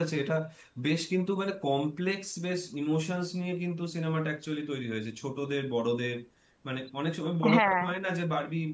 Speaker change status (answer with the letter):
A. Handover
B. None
B